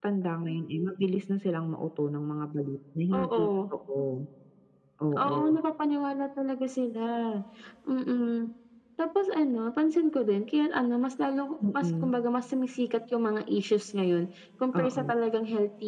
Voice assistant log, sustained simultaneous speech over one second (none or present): none